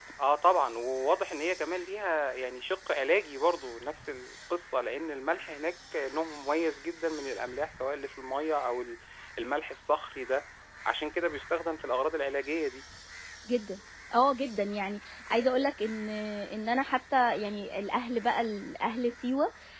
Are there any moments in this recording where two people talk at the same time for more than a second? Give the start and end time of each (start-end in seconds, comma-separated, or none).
none